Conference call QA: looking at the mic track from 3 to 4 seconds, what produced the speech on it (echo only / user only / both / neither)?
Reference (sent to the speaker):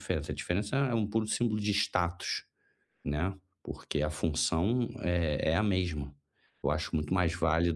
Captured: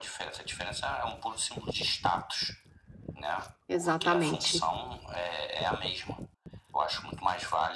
both